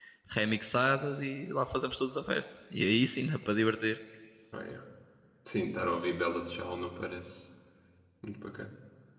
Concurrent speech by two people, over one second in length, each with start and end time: none

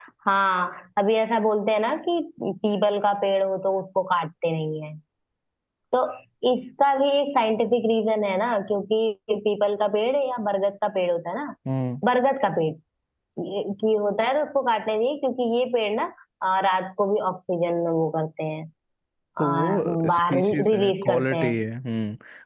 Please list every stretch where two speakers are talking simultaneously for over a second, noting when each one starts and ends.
19.4-21.5

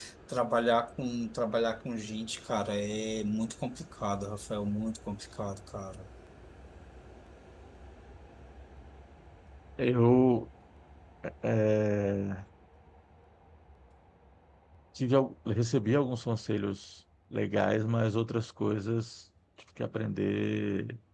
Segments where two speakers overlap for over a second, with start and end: none

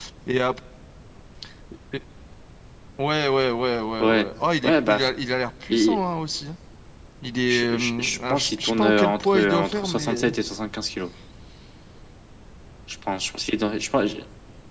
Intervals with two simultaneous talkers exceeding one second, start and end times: 7.5-10.3

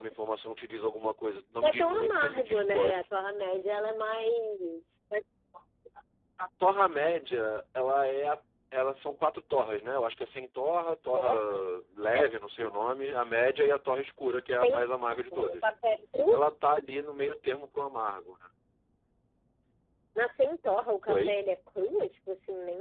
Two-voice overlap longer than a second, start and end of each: 1.6-3.0, 14.4-15.7

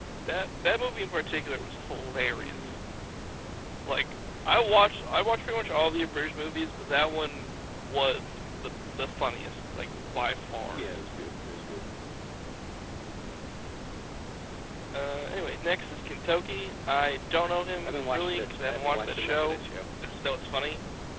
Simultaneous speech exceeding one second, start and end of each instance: 17.9-19.6

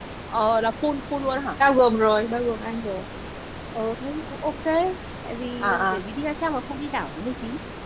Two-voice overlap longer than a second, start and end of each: none

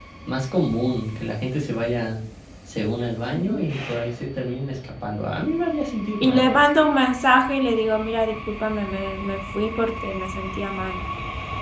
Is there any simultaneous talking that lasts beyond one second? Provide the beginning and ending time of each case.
none

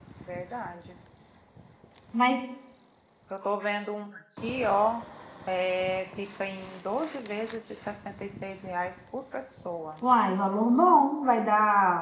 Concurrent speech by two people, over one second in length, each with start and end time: none

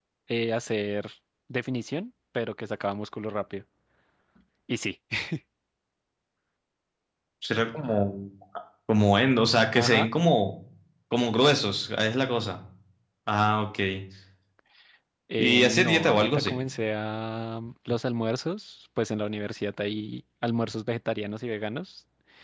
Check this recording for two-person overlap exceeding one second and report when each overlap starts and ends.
15.4-16.6

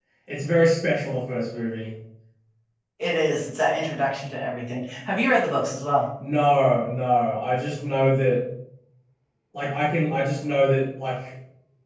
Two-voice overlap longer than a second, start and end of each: none

